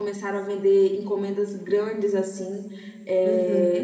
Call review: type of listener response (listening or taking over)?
listening